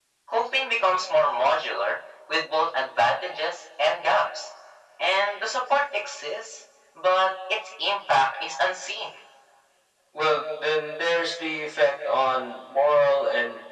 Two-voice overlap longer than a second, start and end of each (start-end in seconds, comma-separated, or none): none